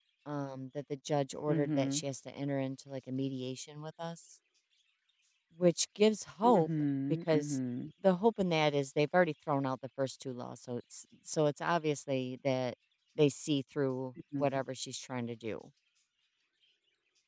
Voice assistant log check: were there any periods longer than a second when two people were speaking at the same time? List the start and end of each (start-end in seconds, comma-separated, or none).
none